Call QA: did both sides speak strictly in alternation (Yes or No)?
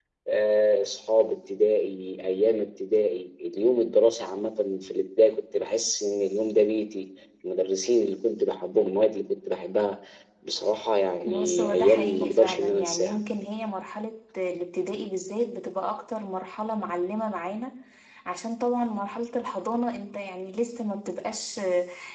No